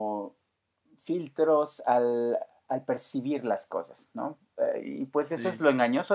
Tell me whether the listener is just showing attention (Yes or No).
Yes